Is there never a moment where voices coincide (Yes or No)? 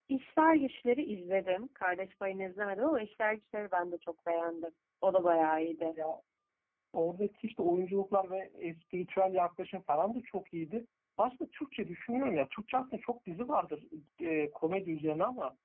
Yes